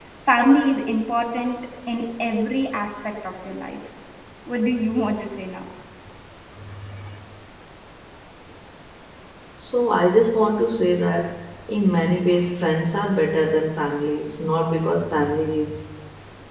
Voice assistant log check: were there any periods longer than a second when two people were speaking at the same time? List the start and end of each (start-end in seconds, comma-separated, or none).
none